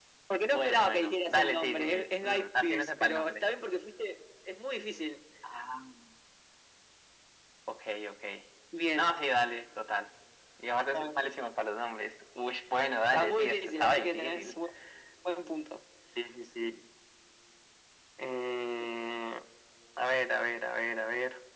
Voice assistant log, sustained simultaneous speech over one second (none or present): present